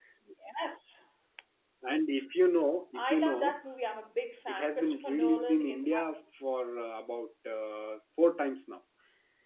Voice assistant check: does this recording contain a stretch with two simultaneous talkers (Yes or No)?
Yes